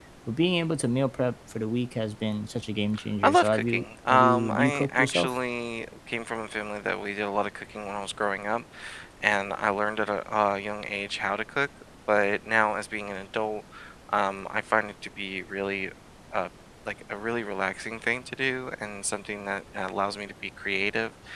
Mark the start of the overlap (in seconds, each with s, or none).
3.2 s